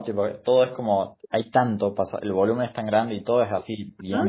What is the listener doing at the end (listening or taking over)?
taking over